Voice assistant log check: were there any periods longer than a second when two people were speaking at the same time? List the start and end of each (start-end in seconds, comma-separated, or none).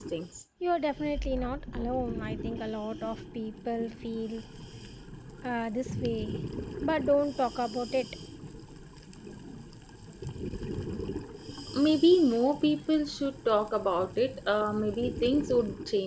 none